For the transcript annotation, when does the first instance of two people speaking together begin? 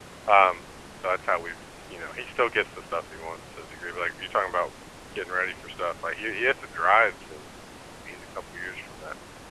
none

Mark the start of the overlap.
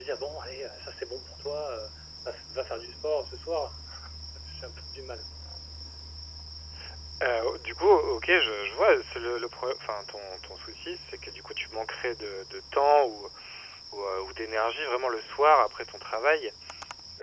none

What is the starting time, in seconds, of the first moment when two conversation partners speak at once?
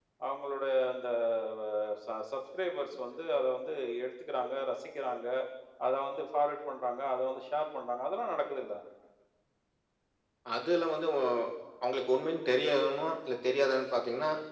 none

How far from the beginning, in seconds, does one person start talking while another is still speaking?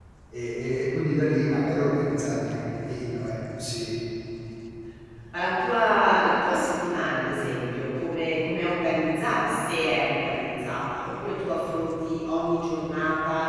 none

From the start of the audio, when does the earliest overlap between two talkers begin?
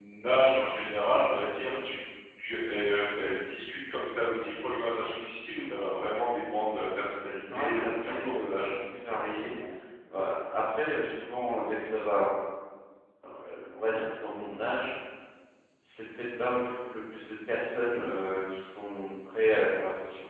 7.5 s

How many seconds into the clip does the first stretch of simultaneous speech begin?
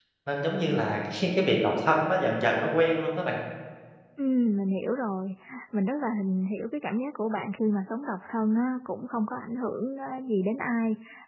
none

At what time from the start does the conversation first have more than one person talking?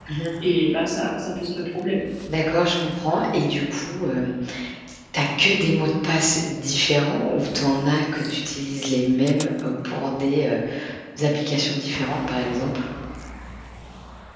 none

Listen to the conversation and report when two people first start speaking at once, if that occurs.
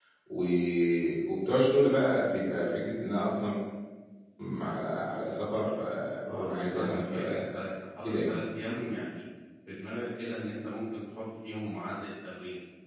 6.3 s

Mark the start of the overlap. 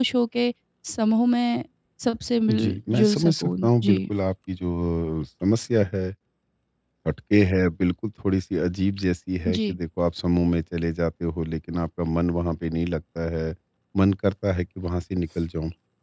2.5 s

